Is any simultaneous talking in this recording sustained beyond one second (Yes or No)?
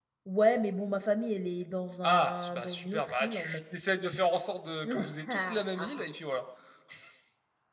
Yes